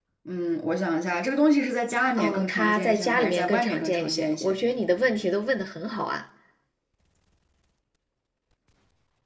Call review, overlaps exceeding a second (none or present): present